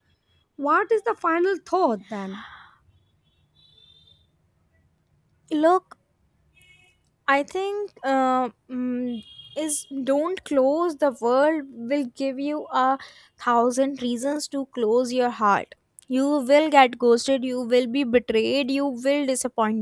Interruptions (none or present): none